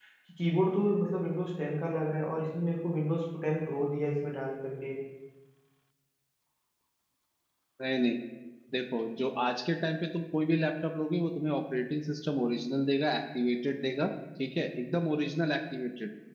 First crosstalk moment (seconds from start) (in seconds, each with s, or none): none